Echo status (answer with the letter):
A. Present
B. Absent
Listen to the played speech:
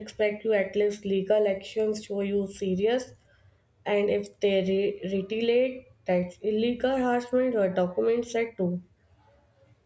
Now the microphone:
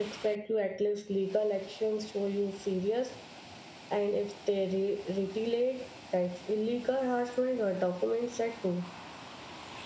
A